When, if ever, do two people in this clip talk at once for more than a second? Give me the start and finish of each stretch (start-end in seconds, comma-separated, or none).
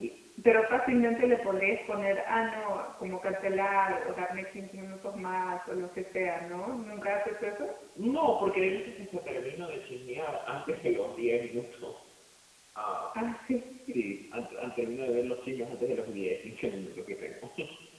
none